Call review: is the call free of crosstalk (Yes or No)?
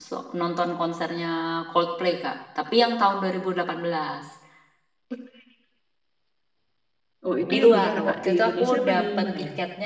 No